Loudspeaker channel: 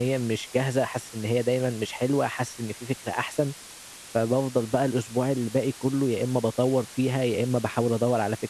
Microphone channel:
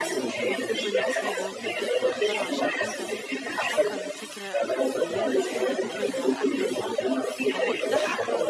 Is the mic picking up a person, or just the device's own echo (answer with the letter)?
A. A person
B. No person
A